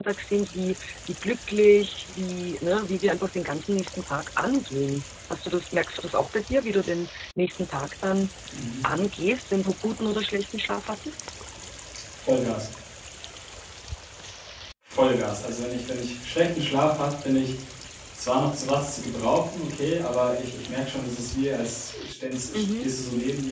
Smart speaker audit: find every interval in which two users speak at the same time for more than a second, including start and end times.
none

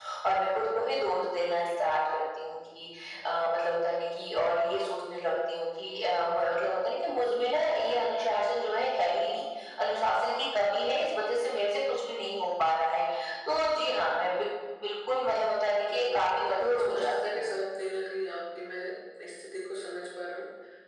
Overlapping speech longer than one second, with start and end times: 15.9-17.4

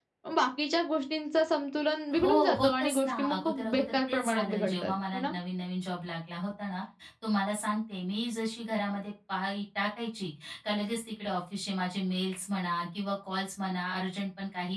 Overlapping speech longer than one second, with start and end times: 2.2-5.3

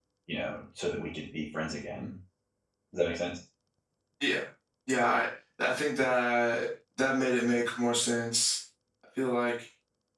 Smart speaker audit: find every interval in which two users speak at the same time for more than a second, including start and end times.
none

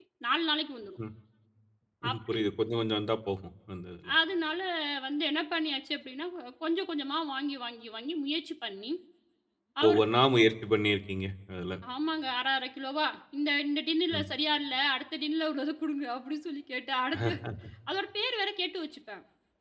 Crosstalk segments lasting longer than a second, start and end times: none

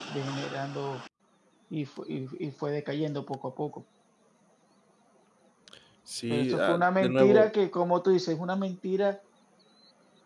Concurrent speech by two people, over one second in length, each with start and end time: 6.3-7.5

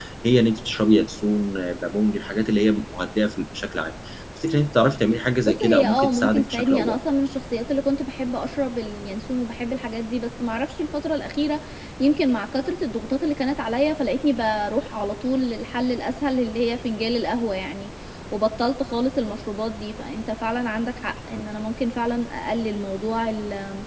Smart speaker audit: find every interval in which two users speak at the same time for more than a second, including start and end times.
5.6-7.0

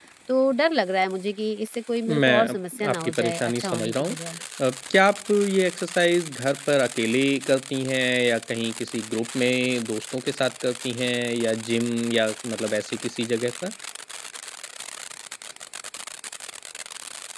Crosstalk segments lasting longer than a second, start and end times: 2.2-4.2

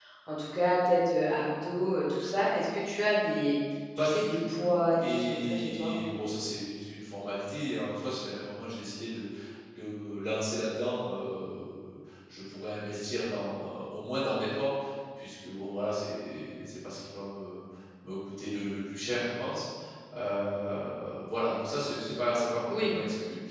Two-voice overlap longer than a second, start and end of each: 4.0-6.0

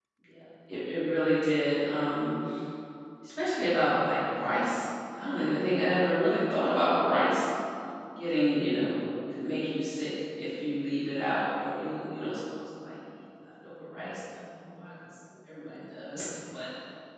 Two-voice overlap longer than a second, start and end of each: none

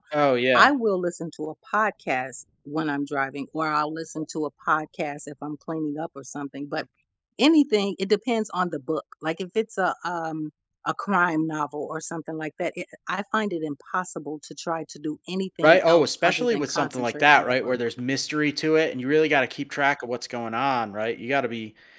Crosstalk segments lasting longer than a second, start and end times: 15.6-17.7

